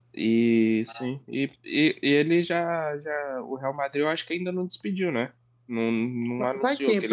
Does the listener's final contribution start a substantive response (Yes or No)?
Yes